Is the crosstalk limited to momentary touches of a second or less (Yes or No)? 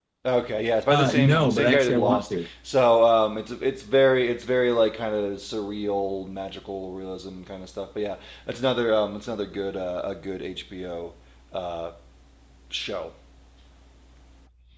No